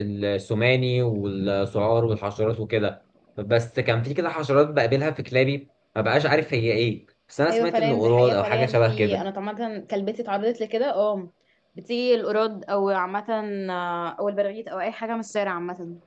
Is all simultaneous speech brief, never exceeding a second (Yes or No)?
No